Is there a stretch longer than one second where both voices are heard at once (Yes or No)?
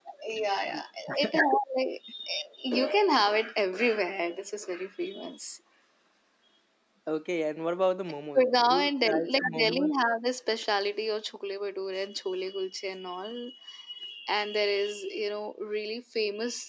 Yes